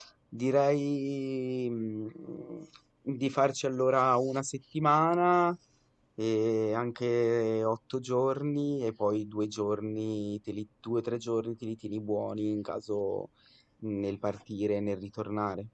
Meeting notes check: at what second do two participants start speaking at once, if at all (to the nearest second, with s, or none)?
none